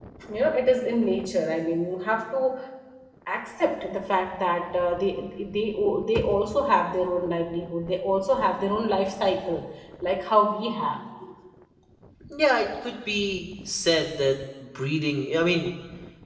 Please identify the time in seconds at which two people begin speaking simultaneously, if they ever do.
none

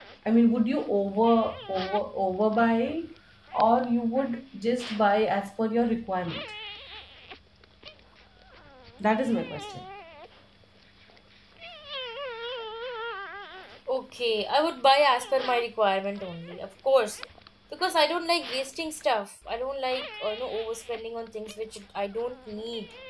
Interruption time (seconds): none

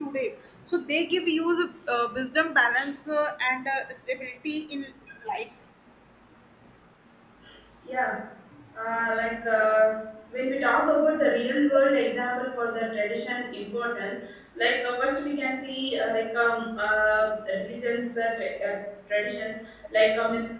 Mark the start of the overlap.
none

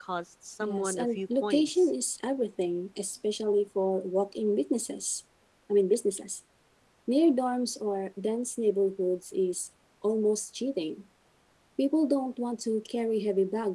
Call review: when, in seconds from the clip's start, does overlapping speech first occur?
0.6 s

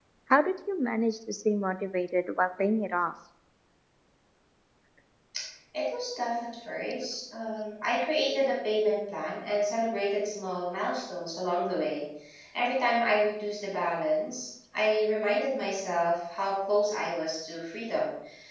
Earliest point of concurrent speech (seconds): none

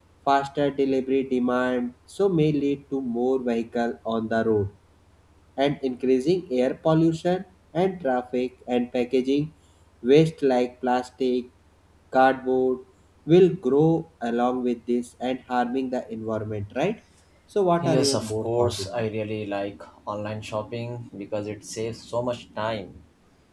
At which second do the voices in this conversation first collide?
17.8 s

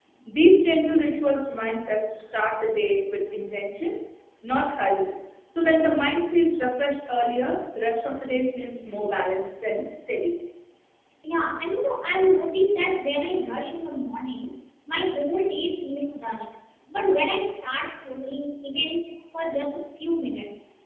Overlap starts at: none

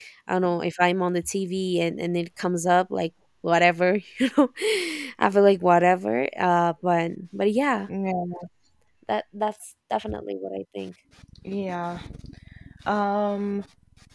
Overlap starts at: none

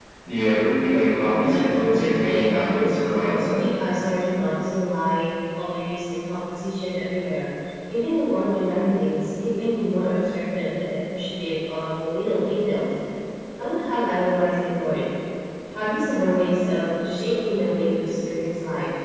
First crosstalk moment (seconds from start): 1.2 s

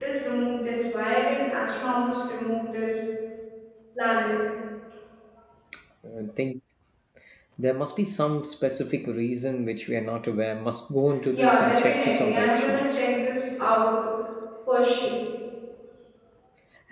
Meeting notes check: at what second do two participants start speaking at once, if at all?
11.3 s

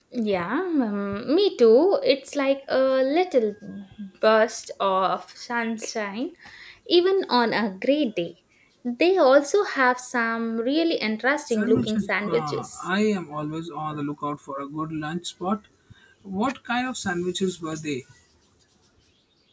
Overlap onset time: 11.5 s

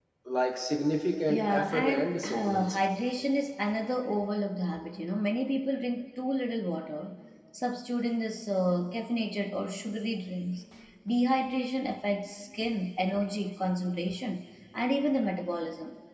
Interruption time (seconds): 1.3 s

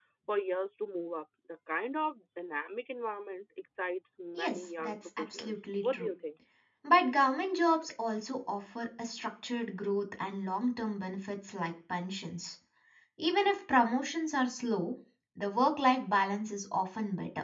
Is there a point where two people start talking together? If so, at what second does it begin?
4.3 s

